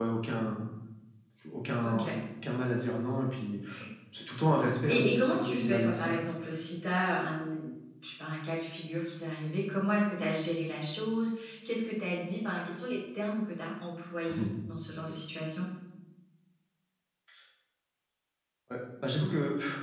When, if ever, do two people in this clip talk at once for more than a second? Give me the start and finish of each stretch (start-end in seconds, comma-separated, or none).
4.9-6.2